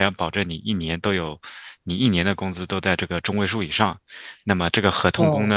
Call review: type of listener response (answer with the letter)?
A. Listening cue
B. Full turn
A